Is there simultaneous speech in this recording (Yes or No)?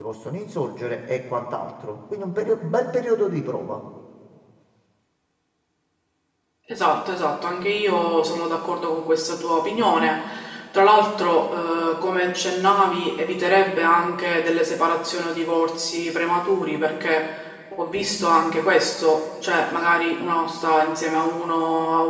No